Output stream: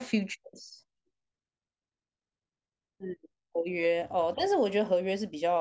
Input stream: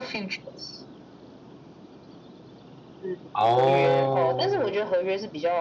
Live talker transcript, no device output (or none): 哦，